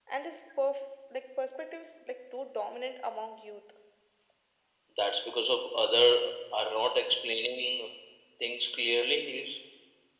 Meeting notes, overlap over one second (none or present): none